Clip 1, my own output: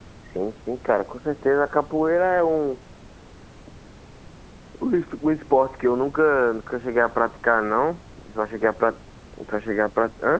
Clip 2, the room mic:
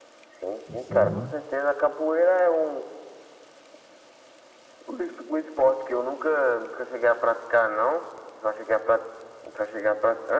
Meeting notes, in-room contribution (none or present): present